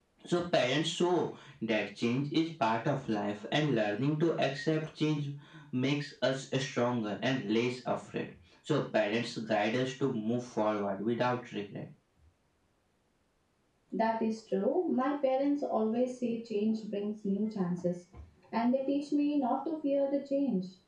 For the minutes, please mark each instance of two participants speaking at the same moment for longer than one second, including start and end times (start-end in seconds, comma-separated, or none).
none